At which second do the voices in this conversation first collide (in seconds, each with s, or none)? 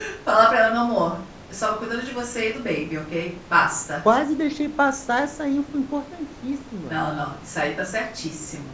none